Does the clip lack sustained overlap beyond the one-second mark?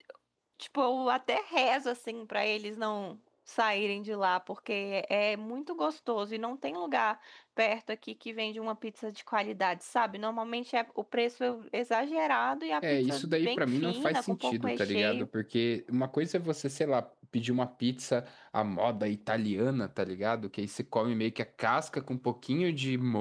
No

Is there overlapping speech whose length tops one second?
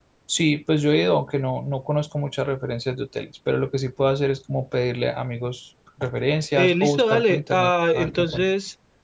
Yes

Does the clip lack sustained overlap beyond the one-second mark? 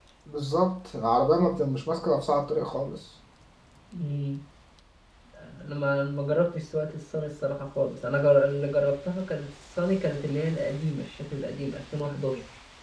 Yes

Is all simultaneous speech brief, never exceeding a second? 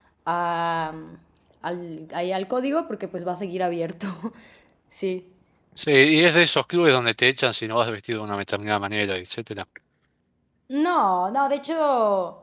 Yes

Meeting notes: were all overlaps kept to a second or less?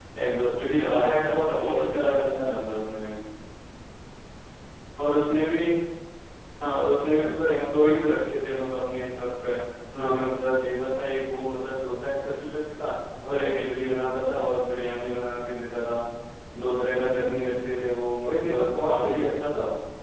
No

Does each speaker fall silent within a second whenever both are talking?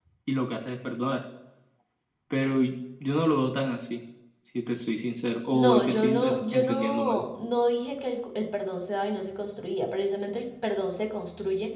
No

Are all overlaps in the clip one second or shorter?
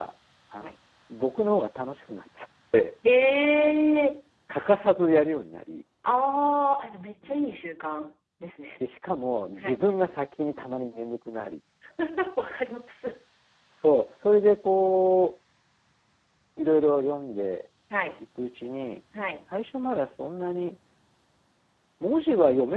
Yes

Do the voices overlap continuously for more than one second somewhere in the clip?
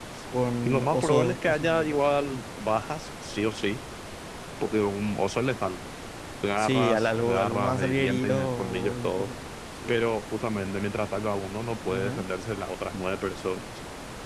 Yes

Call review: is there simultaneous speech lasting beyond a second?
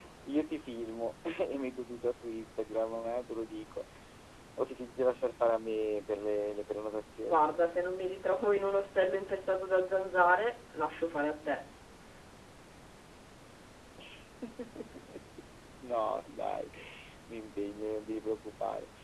No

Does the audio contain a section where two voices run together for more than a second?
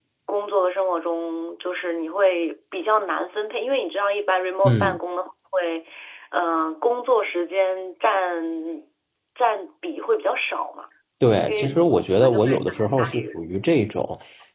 Yes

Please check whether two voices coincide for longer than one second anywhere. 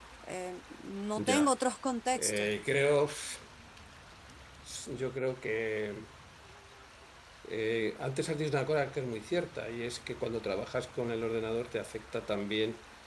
No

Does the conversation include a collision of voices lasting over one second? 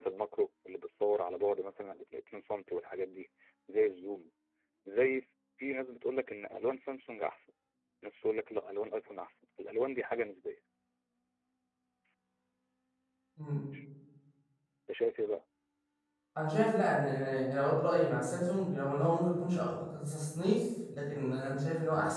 No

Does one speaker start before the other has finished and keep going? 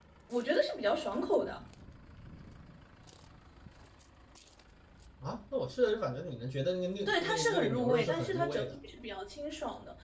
Yes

